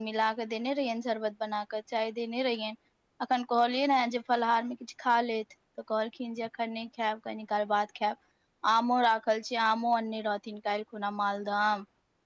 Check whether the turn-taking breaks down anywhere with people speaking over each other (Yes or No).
No